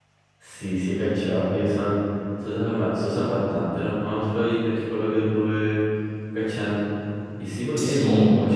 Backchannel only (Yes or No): Yes